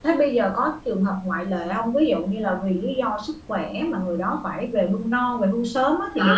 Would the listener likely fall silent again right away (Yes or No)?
No